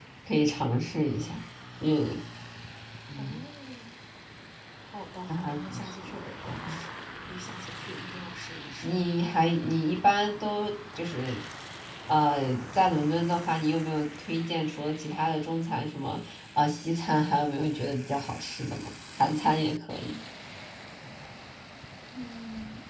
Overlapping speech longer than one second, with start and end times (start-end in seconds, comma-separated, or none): 5.3-6.8